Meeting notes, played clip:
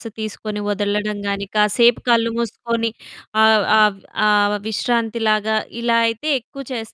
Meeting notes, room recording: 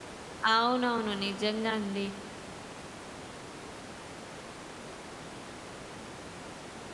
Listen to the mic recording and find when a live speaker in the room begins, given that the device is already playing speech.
0.5 s

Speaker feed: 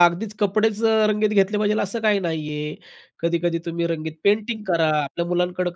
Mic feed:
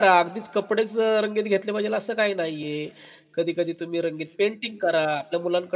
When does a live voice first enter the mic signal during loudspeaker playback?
none

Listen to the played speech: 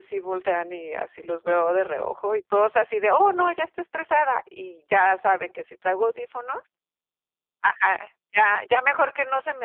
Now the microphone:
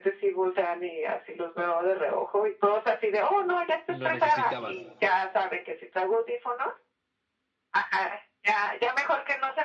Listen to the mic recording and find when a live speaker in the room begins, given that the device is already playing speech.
3.9 s

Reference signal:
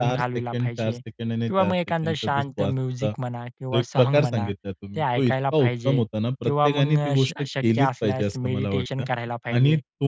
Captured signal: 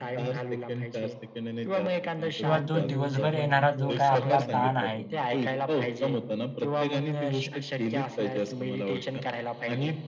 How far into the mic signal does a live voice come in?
2.4 s

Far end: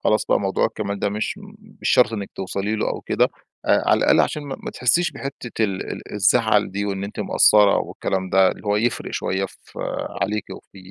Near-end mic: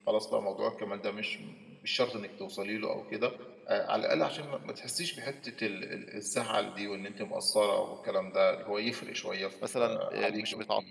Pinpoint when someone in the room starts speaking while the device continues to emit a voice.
9.6 s

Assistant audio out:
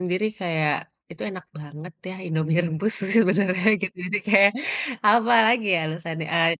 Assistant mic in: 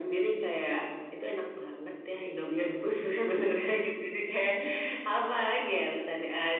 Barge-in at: none

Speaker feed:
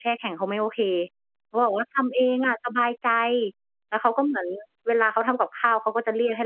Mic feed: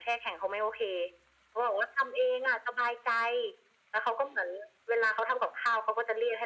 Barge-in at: none

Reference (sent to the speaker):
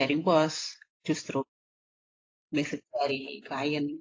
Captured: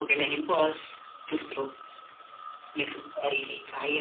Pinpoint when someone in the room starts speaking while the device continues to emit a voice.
none

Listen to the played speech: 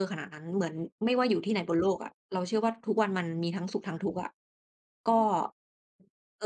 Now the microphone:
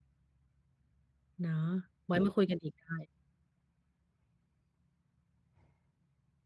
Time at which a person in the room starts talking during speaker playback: 1.4 s

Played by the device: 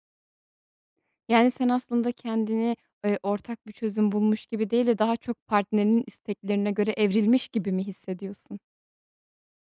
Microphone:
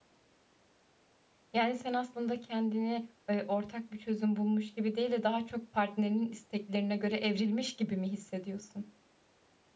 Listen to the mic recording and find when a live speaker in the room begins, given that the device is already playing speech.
none

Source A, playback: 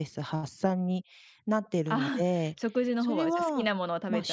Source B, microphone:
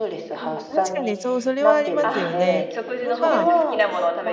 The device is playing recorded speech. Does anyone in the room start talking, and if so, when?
0.3 s

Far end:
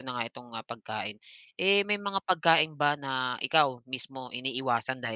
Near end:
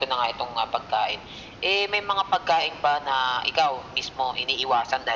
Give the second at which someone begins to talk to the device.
none

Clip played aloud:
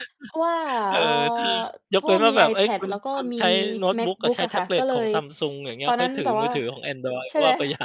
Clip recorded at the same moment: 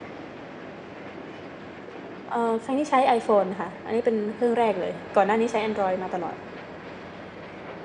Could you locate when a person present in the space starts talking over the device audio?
2.3 s

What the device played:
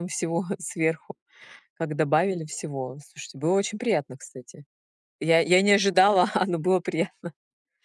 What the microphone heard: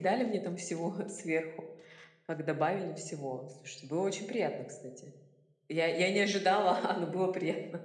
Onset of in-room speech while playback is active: none

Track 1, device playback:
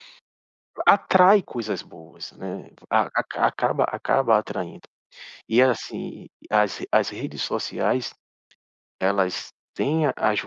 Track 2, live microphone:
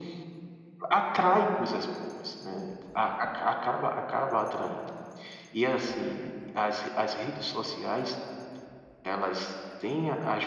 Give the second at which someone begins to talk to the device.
none

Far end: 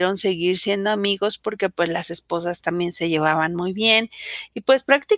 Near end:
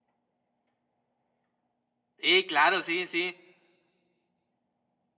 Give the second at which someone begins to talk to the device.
2.2 s

